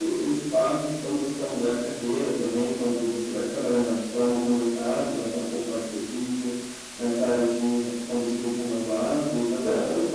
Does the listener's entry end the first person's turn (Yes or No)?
No